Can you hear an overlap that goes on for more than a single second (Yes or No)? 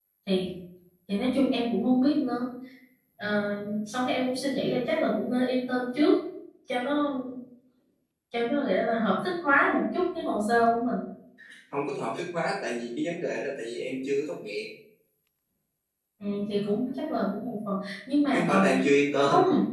No